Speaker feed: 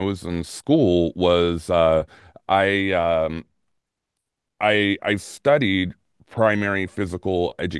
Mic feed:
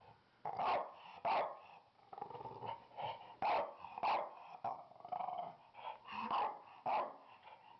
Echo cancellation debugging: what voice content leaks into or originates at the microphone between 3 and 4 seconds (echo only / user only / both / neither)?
neither